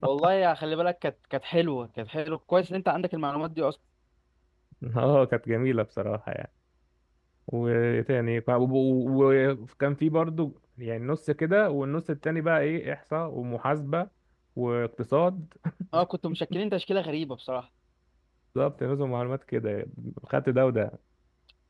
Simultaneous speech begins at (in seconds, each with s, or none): none